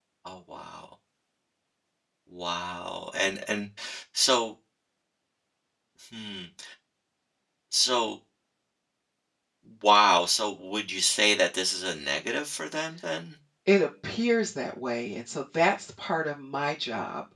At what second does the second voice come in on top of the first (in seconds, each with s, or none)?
none